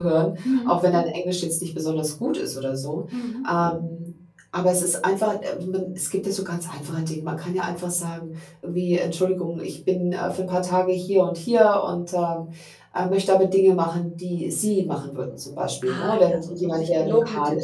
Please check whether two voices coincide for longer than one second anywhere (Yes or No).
Yes